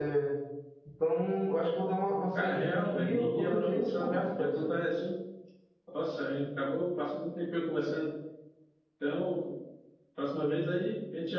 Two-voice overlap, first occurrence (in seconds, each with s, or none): 2.3 s